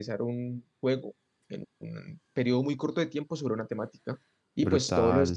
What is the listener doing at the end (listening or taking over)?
listening